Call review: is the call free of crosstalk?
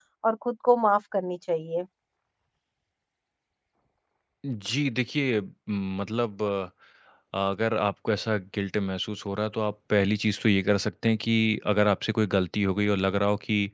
Yes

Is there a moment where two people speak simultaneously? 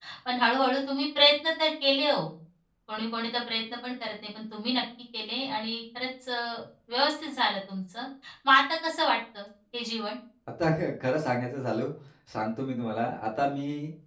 No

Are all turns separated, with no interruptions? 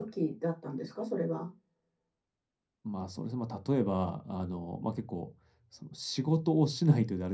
Yes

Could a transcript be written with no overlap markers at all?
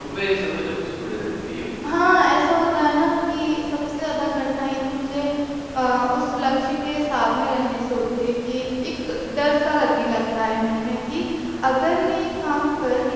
Yes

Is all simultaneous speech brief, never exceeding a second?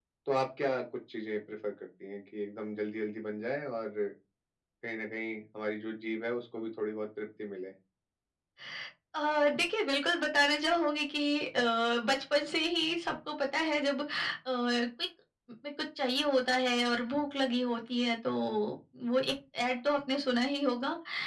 Yes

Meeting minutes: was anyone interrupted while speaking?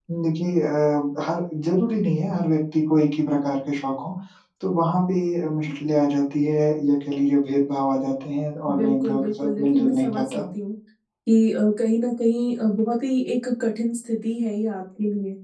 Yes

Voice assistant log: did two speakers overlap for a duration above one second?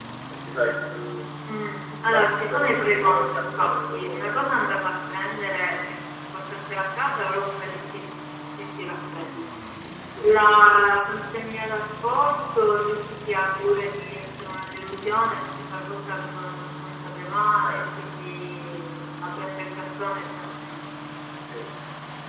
Yes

